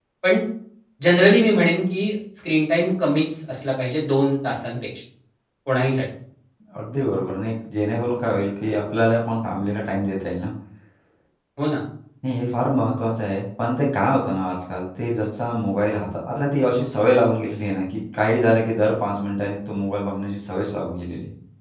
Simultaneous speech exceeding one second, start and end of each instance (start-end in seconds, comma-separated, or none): none